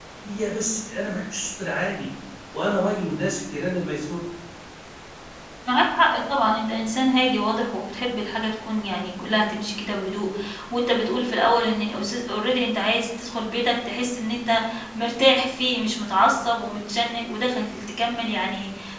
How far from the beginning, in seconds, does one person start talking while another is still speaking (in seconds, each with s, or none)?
none